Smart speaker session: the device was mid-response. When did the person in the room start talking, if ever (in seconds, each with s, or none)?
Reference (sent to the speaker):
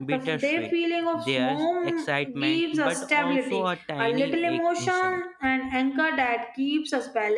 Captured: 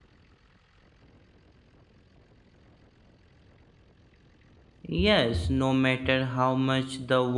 4.8 s